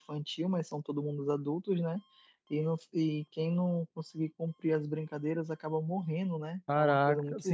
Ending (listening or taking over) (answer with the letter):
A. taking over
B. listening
A